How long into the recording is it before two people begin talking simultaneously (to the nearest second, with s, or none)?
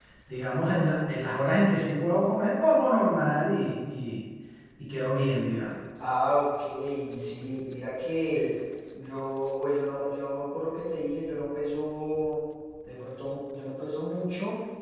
none